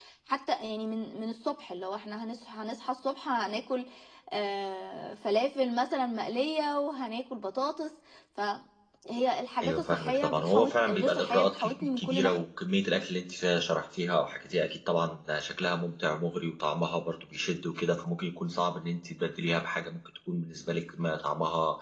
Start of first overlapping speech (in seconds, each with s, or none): 9.6 s